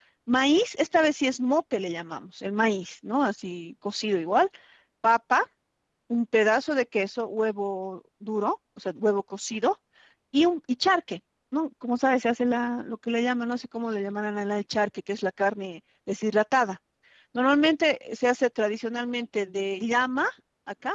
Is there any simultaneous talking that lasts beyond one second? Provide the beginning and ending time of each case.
none

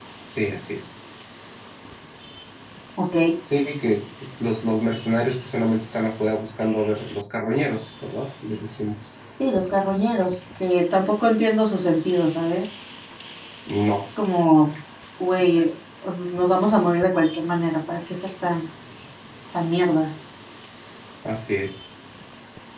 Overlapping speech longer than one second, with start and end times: none

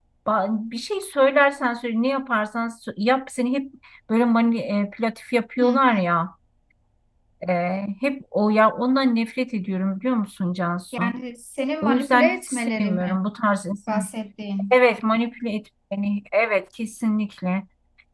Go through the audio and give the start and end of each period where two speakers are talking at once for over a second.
11.8-13.2

